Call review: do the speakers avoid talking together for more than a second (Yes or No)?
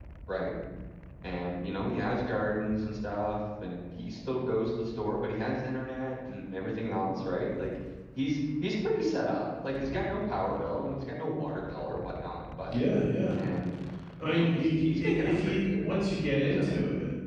No